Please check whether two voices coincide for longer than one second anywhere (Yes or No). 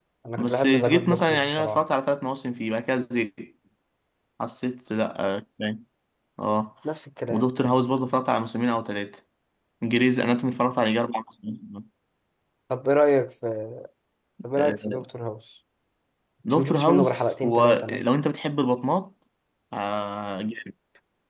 Yes